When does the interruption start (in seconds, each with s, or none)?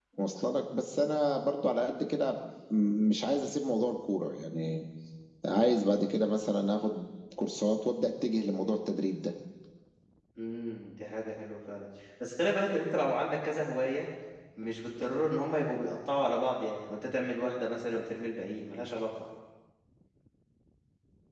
none